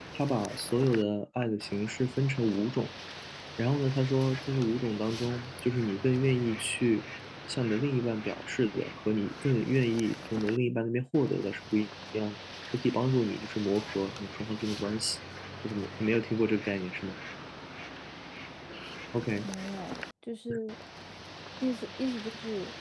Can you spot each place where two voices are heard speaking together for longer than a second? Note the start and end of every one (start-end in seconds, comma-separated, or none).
none